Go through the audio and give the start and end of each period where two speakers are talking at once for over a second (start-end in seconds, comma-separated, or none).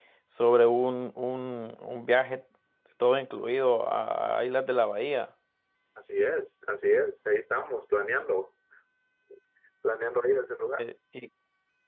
none